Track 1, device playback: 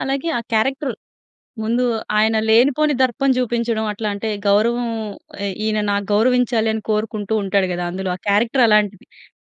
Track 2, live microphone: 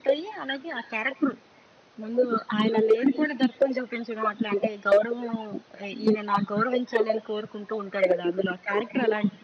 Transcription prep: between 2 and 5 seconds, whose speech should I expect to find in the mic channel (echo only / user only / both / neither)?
echo only